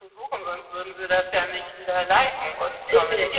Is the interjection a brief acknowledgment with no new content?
No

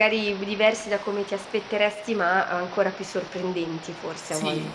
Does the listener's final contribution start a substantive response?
Yes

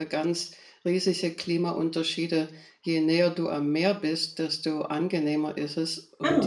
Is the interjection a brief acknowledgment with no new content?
Yes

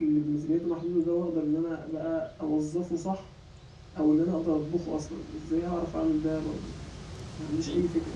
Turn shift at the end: Yes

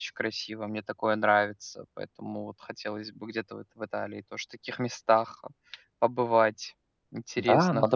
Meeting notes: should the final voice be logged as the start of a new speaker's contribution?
Yes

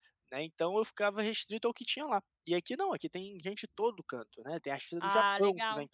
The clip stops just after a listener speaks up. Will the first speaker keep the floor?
Yes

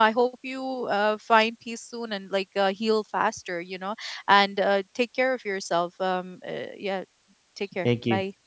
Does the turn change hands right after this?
Yes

